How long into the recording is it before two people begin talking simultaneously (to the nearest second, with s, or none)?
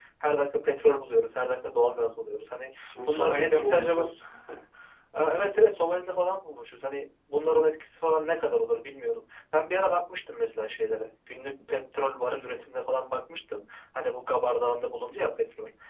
3 s